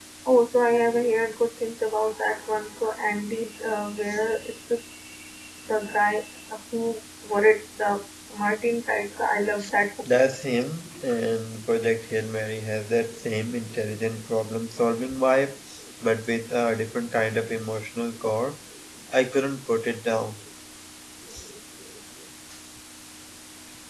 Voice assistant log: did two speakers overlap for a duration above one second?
No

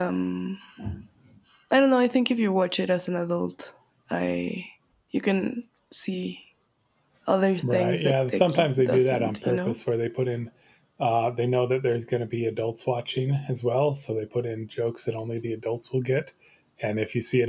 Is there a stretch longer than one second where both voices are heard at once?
Yes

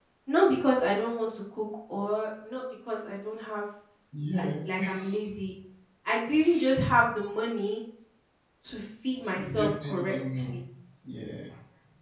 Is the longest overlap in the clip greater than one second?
Yes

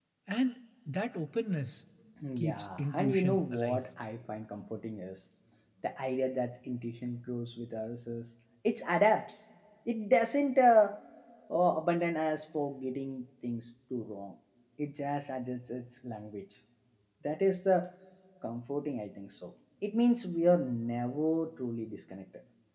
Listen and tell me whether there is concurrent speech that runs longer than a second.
Yes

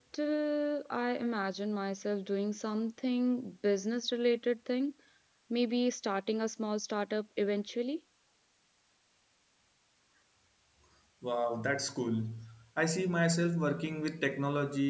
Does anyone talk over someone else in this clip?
No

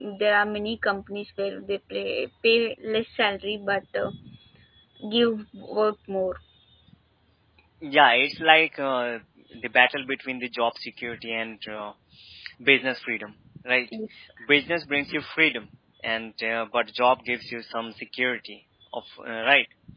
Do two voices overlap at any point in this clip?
No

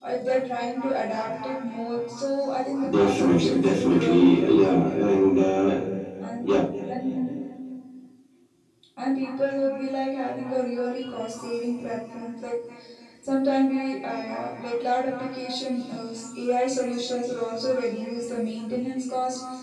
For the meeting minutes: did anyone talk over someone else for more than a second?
Yes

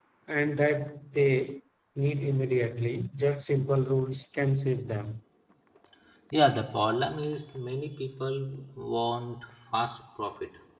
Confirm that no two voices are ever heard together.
Yes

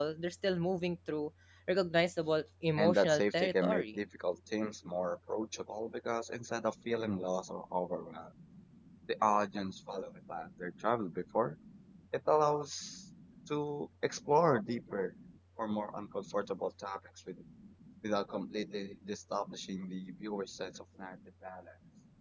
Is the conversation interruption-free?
No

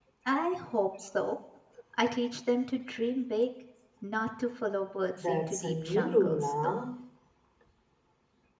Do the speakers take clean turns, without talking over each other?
No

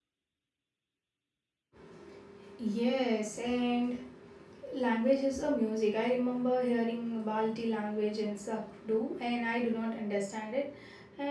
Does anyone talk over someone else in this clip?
No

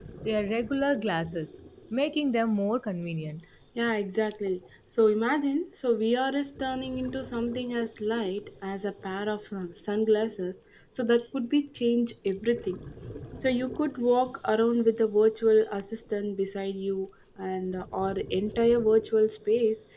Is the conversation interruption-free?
Yes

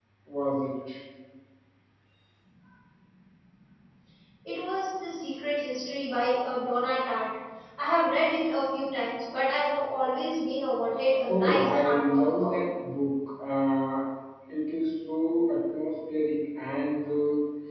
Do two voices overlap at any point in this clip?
Yes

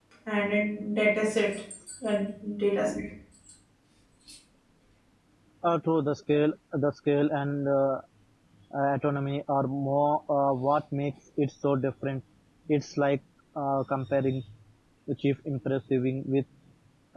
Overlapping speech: No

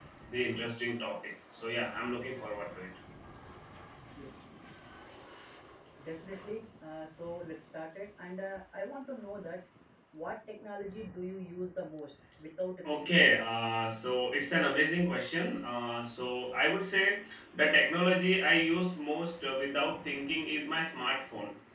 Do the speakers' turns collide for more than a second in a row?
No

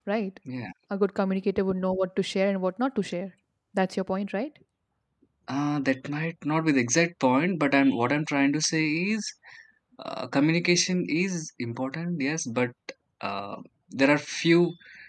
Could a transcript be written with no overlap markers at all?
Yes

